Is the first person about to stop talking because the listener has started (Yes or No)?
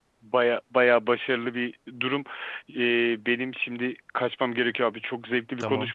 No